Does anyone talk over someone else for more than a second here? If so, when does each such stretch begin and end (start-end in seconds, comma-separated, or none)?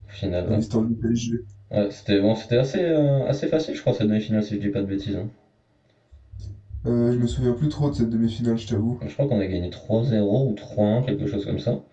none